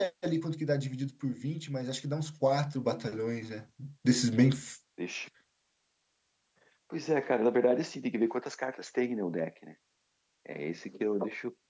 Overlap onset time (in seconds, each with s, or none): none